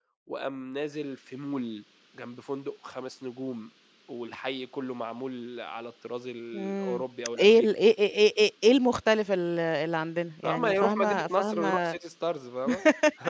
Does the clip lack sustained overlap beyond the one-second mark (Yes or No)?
No